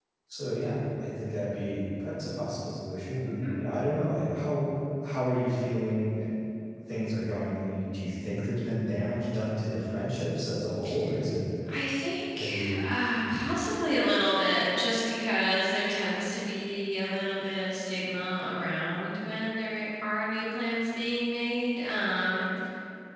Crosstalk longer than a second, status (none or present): none